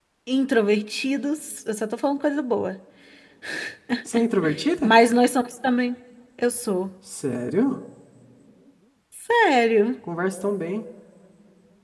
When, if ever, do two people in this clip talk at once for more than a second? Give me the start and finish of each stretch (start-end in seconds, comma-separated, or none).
none